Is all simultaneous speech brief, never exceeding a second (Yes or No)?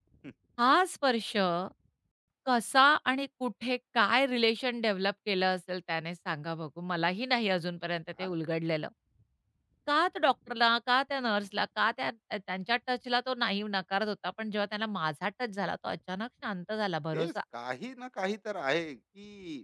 Yes